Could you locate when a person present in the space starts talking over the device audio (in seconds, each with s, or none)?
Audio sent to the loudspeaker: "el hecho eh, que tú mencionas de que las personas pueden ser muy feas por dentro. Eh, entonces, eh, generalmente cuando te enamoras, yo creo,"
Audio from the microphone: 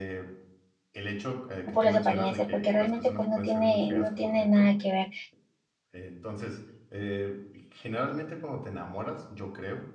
1.7 s